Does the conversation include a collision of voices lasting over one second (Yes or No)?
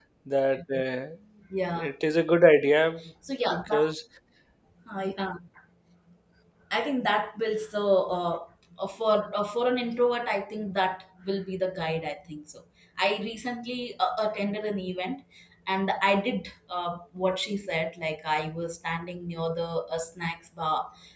No